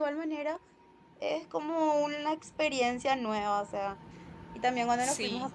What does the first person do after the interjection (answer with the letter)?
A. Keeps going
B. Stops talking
A